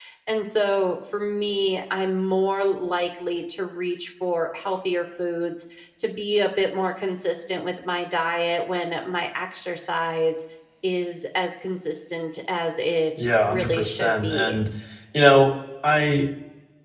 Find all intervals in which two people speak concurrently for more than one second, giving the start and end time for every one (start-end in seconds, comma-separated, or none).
13.2-14.6